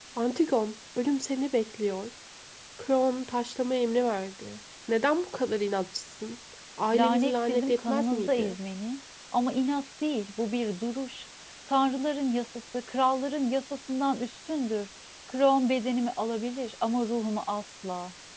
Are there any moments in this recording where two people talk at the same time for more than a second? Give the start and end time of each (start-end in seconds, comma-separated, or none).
6.9-8.6